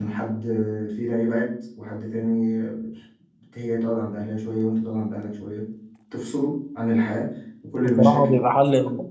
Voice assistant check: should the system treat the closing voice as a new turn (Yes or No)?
Yes